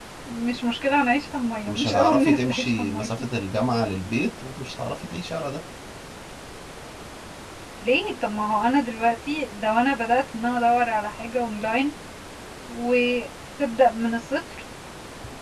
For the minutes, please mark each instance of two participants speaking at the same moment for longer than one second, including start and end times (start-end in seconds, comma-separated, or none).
1.7-3.1